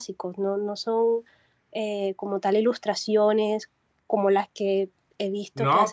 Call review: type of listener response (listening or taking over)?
taking over